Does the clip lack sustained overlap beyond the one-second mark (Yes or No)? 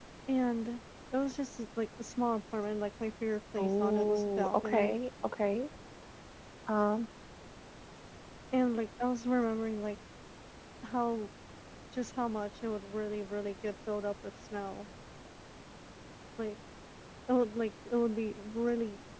No